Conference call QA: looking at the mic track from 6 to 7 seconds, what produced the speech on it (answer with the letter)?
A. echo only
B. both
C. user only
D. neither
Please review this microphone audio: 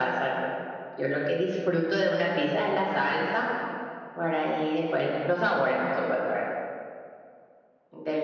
A